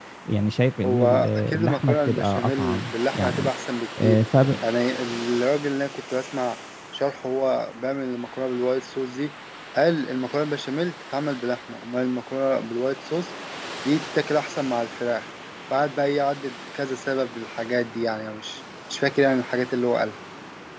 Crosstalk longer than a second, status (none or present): present